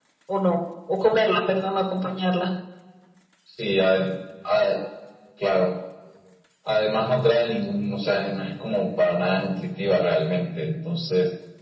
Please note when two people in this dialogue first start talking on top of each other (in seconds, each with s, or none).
none